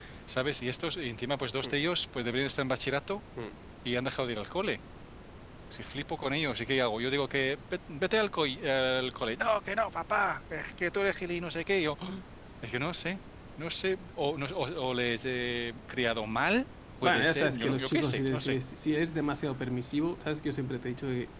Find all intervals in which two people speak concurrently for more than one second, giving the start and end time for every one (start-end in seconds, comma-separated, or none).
17.0-18.6